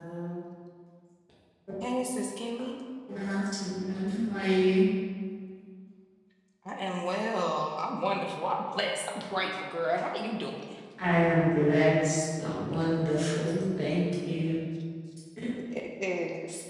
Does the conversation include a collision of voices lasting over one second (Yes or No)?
No